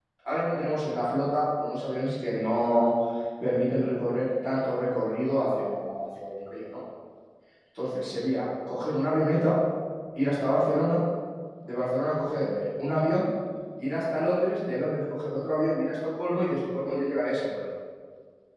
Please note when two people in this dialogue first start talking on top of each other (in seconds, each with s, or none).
none